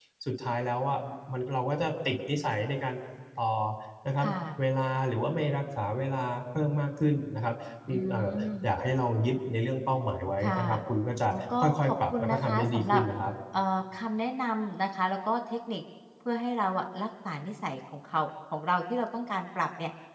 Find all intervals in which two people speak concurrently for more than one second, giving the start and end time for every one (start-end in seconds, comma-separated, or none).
11.3-13.0